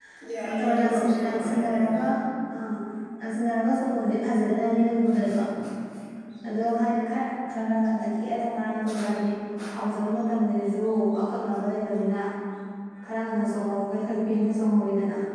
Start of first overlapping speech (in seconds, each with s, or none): 0.6 s